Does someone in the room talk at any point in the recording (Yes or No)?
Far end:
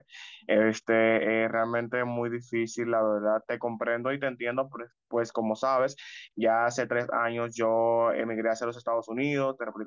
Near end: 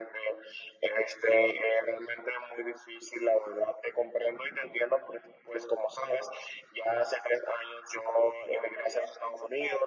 Yes